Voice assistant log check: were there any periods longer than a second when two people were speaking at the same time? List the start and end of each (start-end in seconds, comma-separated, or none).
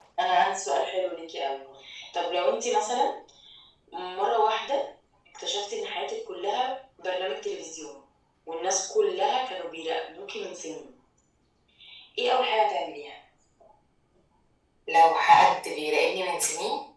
none